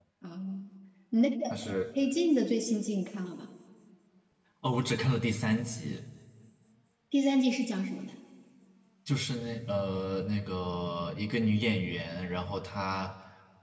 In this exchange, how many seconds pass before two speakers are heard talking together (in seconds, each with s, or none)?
none